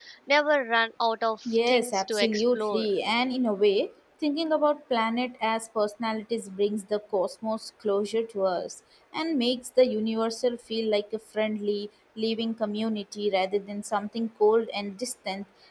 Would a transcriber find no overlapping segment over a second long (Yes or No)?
No